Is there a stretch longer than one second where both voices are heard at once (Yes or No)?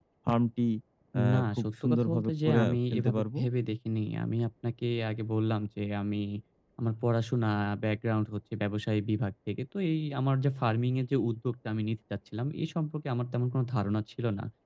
Yes